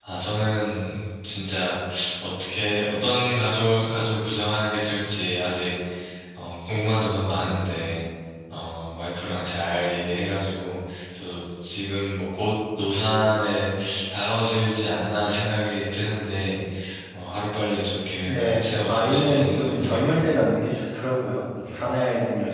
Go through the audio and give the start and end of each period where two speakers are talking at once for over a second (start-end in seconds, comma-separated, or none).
18.2-20.5